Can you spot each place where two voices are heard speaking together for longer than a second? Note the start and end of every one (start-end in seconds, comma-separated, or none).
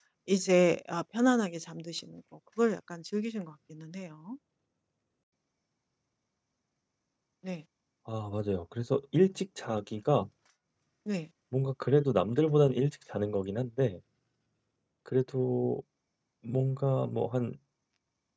none